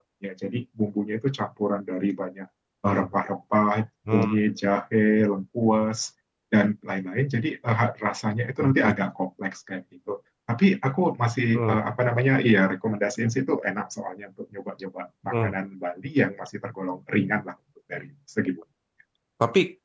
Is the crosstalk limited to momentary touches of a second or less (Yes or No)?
Yes